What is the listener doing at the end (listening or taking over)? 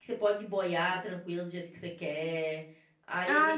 taking over